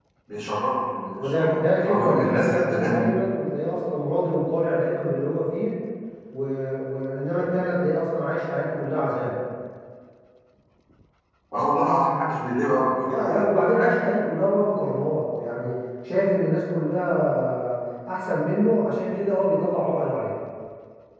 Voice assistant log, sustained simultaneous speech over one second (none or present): present